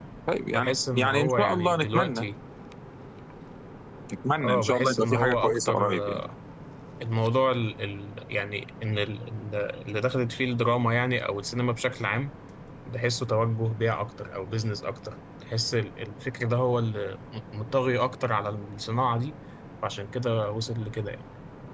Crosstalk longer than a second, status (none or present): present